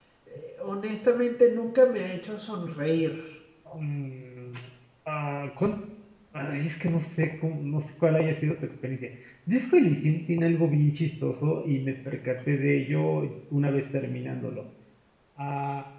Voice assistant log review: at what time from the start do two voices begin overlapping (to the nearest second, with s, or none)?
none